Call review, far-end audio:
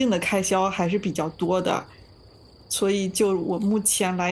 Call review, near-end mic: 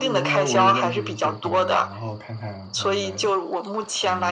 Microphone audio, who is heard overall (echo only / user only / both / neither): both